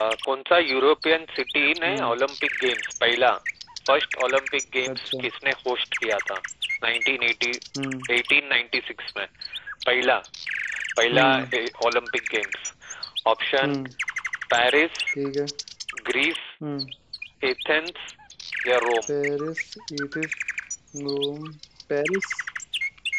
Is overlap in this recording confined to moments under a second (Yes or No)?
Yes